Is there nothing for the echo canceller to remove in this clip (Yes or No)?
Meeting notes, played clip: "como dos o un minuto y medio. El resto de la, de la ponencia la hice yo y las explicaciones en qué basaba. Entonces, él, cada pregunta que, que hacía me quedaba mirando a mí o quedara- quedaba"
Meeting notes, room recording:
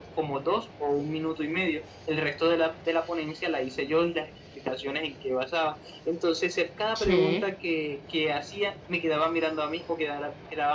No